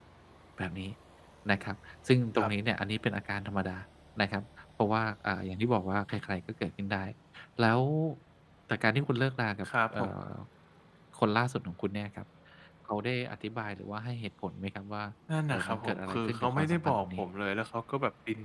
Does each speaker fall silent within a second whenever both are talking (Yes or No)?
No